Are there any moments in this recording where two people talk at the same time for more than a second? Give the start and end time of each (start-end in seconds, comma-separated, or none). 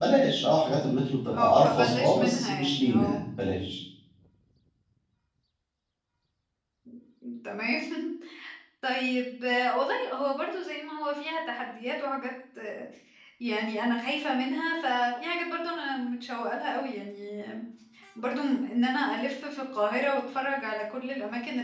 1.3-3.2